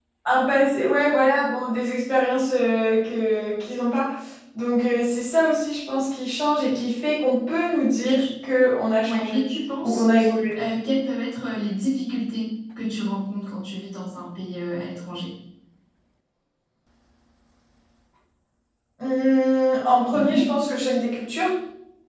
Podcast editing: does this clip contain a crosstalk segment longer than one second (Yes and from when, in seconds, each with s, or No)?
No